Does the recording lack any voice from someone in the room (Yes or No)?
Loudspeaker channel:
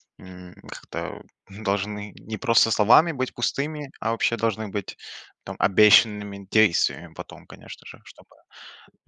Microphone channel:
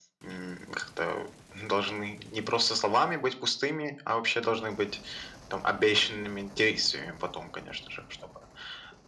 Yes